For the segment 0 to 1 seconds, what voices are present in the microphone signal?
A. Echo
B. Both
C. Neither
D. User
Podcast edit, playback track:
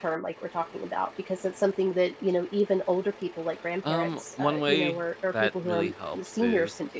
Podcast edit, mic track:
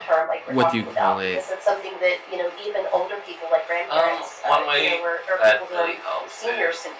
B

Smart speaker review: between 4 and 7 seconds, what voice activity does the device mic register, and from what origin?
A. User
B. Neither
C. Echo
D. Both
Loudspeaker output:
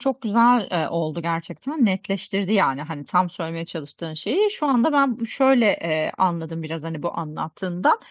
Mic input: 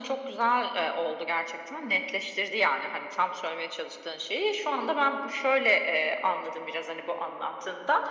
C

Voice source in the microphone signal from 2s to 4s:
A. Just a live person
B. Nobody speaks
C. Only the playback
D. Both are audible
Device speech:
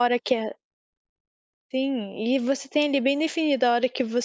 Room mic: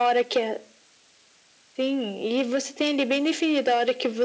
C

